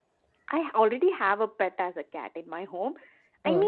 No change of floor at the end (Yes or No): Yes